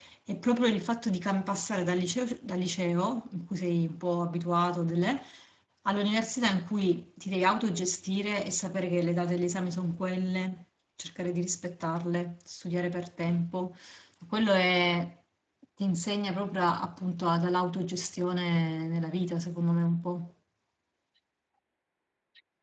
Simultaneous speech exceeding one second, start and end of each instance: none

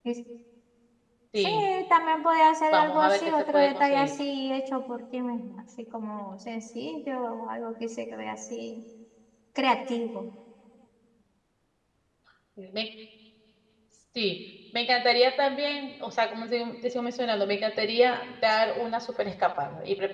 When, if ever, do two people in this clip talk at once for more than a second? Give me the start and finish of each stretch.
2.7-4.1

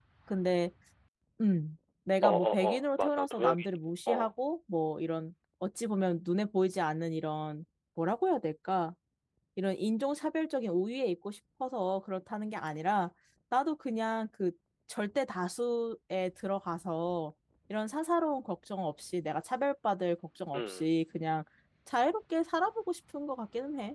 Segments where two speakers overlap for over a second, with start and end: 2.2-3.7

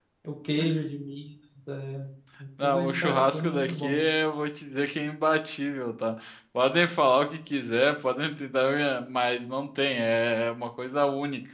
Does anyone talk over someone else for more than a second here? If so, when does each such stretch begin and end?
2.6-4.0

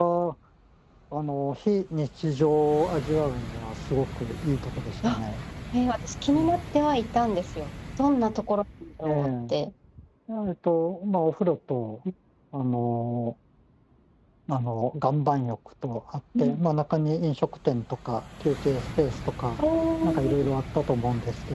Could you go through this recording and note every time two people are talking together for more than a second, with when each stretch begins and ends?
none

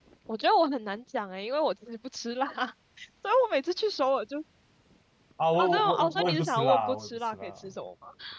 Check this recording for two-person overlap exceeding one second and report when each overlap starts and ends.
5.6-7.5

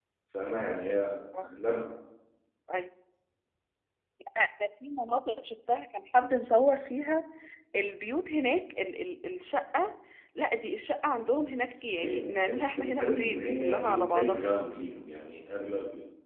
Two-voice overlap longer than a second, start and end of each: 12.0-14.5

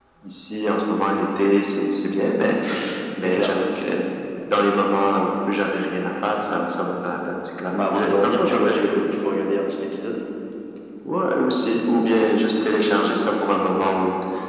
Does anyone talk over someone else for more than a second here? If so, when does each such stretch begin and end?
7.7-8.9

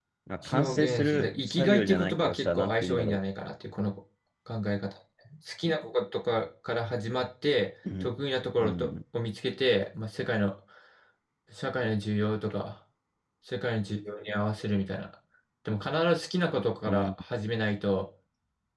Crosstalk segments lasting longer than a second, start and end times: 0.5-3.2

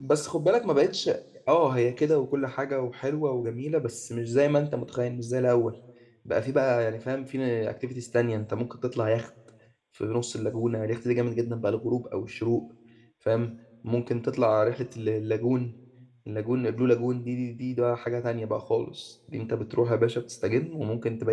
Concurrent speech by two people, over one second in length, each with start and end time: none

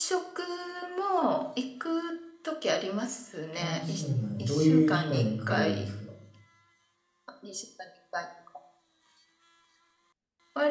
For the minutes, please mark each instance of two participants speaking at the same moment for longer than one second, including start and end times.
4.4-5.9

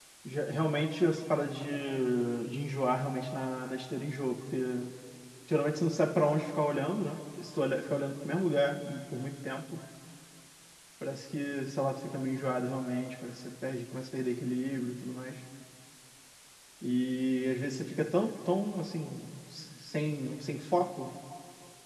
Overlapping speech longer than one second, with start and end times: none

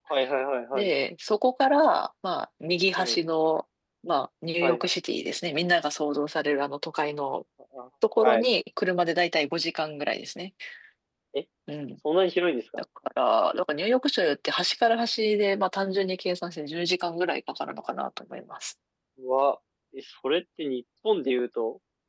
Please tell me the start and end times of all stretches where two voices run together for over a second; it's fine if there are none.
none

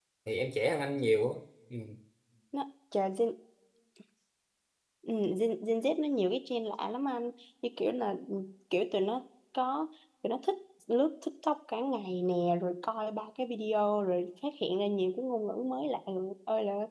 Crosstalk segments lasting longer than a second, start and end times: none

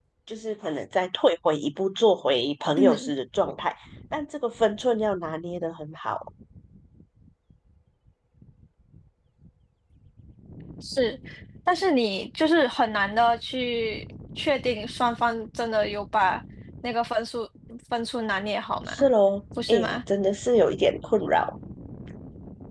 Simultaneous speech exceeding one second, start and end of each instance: none

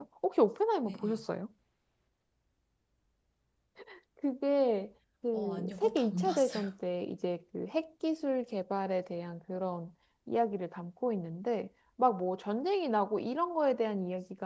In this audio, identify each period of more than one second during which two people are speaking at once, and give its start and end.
5.3-6.6

